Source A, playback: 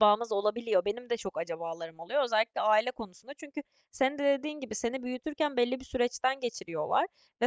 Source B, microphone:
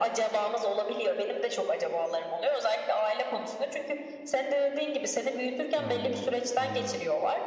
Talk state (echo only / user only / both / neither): both